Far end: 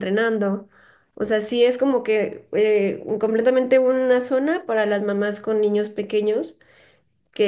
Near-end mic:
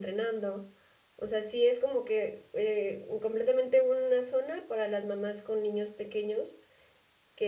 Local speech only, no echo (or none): none